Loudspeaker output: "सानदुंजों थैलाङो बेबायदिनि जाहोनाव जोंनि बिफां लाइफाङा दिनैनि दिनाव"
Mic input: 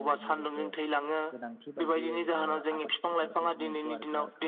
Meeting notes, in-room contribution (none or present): present